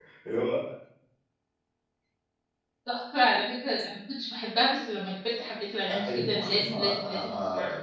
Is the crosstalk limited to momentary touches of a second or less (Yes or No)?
No